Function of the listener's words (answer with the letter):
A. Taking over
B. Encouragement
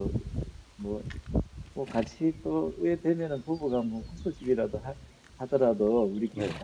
B